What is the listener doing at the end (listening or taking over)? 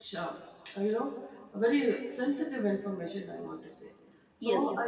listening